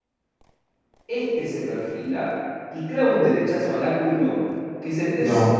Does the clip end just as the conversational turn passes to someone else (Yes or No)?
No